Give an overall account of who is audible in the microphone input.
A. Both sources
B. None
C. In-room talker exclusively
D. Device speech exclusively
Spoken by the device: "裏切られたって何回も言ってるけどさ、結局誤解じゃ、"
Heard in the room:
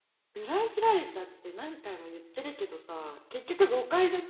D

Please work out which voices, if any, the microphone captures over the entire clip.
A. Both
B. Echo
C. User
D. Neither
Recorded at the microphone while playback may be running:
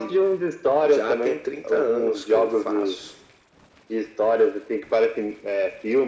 B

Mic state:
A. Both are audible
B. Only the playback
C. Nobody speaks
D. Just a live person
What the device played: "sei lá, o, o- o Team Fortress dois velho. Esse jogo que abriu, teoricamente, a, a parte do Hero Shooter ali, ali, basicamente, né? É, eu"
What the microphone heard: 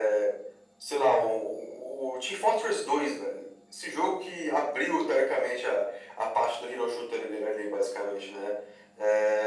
B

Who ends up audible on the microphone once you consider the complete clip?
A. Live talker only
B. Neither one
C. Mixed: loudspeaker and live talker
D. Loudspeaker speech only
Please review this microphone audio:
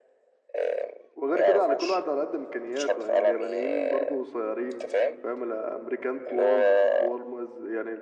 C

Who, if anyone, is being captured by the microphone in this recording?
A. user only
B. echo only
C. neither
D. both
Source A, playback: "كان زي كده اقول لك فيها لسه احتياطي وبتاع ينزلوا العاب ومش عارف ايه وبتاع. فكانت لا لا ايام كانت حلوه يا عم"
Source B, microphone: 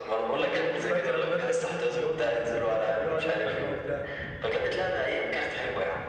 D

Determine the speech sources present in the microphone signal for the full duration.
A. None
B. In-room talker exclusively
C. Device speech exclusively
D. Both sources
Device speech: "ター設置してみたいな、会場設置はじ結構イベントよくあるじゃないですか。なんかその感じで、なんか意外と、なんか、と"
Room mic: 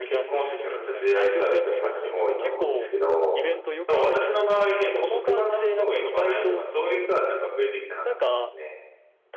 D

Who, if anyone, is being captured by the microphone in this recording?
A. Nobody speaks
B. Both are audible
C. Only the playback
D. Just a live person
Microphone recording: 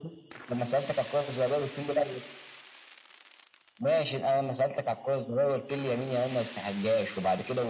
C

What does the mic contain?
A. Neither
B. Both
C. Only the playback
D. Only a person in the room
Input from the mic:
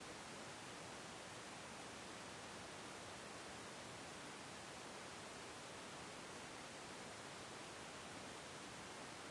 A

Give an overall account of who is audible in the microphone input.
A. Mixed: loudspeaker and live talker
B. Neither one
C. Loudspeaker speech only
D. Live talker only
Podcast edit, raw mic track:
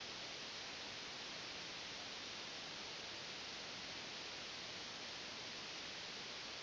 B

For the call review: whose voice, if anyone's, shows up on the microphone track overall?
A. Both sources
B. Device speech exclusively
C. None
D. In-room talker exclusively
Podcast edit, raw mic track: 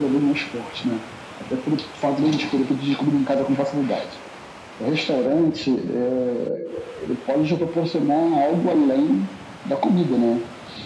B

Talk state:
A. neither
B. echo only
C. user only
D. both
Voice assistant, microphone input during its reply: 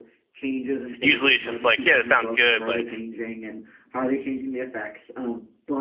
D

